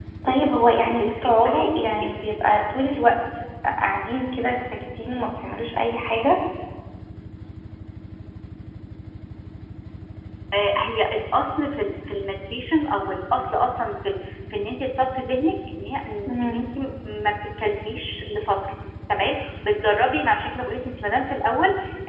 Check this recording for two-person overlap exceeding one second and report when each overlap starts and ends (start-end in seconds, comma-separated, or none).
0.8-2.1